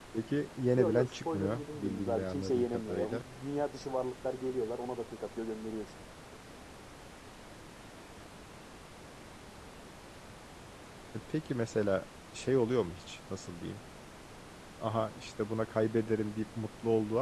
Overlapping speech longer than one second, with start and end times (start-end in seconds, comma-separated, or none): 0.8-3.2